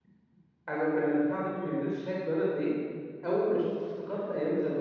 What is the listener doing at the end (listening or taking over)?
listening